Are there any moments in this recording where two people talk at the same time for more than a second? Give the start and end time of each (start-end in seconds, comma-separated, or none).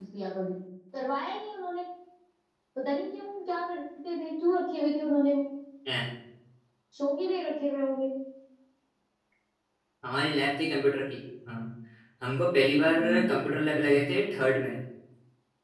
none